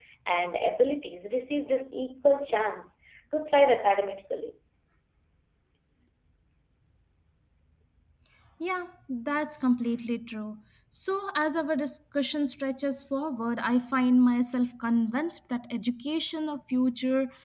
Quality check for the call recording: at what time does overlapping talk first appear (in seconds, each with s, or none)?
none